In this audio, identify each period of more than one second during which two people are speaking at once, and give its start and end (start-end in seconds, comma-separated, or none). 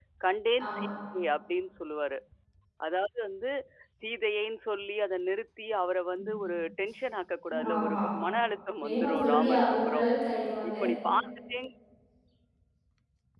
8.8-10.1